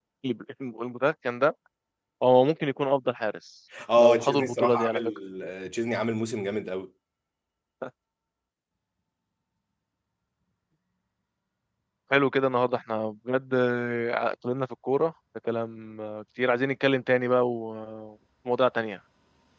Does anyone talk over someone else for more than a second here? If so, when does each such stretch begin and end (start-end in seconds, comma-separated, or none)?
4.0-5.2